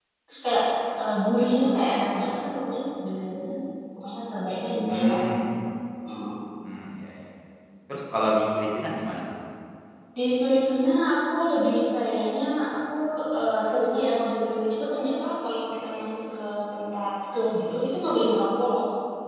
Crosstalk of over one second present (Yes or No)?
No